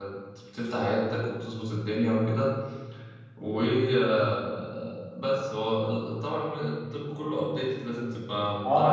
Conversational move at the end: taking over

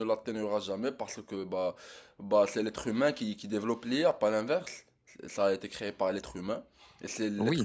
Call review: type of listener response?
taking over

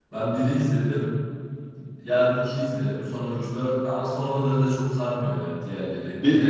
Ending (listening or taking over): taking over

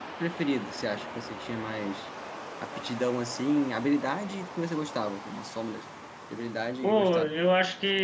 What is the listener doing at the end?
taking over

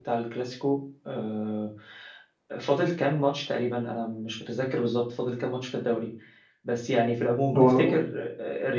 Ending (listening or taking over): listening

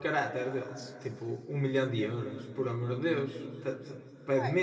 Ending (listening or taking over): taking over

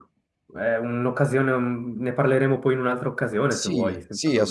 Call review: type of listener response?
taking over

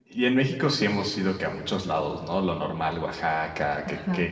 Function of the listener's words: listening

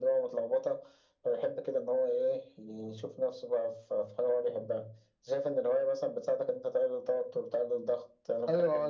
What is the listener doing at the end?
taking over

